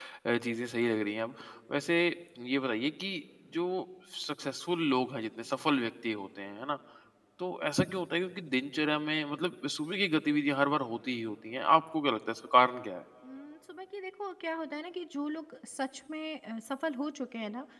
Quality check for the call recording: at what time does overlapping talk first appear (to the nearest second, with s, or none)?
none